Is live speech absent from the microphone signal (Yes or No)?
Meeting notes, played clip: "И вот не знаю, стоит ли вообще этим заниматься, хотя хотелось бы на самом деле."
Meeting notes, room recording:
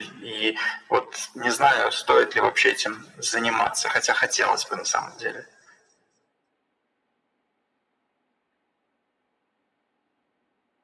Yes